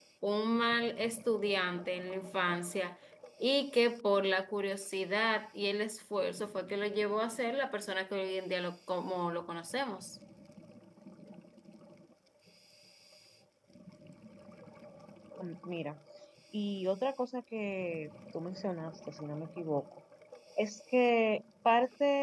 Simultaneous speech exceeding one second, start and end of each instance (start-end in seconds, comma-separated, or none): none